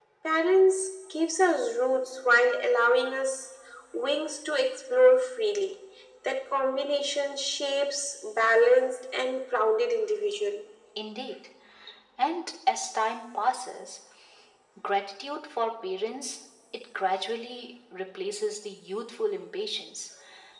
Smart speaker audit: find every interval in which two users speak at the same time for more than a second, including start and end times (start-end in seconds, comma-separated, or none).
none